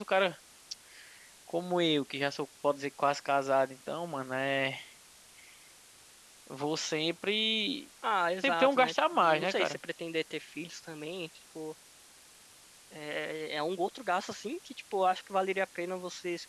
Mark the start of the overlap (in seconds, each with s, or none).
8.4 s